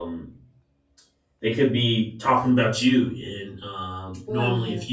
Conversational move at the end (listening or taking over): listening